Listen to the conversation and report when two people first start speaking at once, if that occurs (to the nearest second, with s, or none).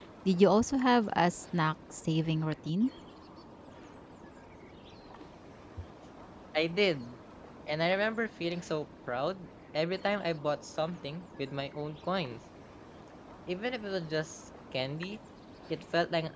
none